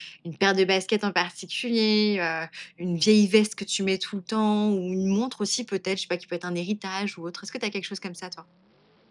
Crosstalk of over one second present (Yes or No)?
No